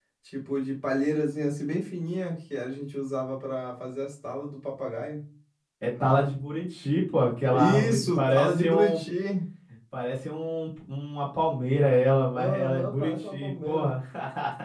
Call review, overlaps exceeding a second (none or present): present